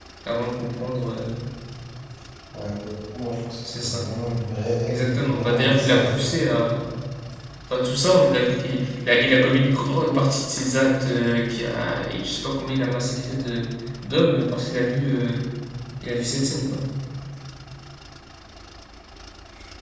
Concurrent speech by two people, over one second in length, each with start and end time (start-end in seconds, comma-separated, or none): 4.9-6.4